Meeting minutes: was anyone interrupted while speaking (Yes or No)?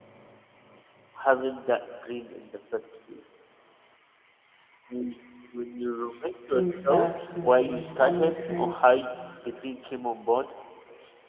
Yes